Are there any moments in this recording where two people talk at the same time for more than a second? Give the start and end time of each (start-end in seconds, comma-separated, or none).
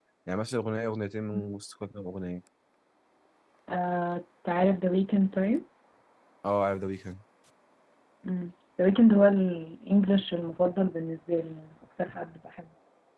none